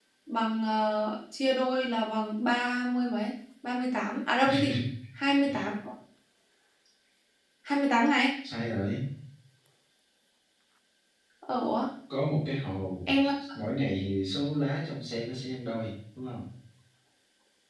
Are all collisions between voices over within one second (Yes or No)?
Yes